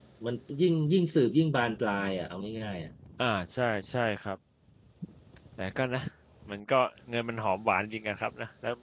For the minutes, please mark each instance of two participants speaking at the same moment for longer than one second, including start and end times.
none

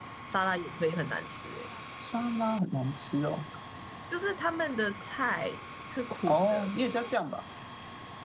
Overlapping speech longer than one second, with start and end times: none

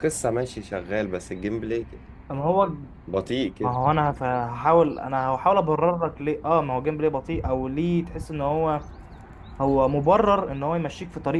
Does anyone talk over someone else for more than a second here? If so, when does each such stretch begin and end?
none

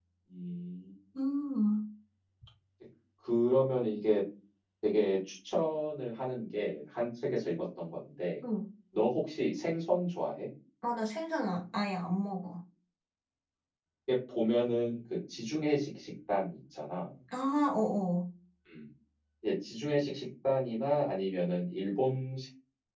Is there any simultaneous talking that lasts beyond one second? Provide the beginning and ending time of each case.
none

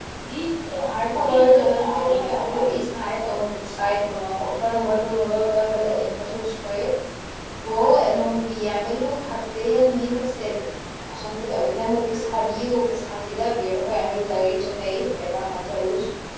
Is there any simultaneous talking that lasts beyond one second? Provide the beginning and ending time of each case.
0.8-2.9

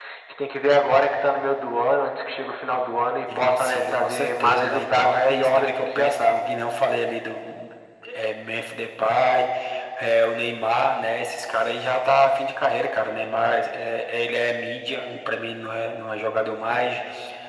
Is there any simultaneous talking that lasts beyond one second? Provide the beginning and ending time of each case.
3.4-6.4

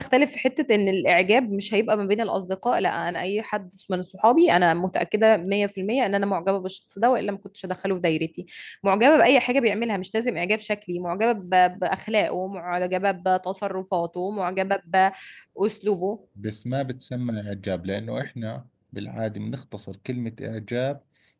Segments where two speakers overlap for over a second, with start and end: none

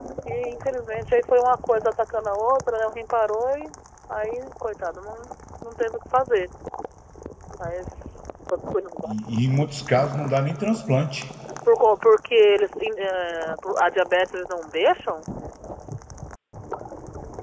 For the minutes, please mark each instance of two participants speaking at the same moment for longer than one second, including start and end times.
none

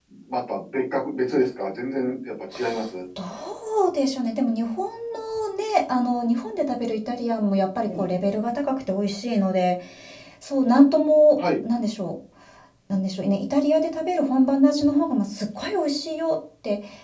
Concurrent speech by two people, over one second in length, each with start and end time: none

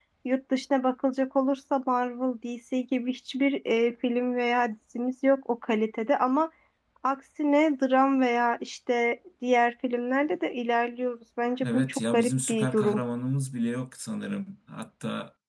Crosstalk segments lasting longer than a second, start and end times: 11.6-13.0

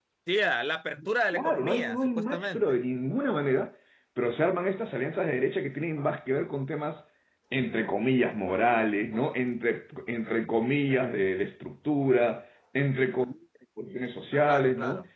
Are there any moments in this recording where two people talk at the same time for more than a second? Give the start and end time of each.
1.3-2.8

